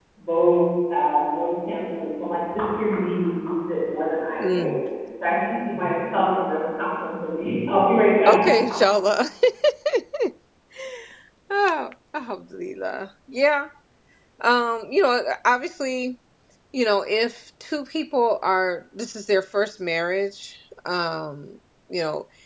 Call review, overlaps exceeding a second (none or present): none